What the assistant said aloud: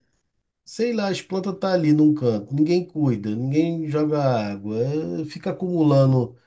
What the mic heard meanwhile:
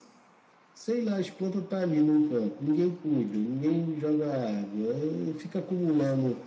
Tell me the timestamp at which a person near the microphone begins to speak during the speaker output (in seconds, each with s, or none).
none